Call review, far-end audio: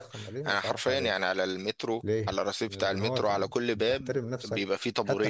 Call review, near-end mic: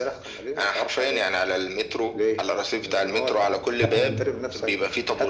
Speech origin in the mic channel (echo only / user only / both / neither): both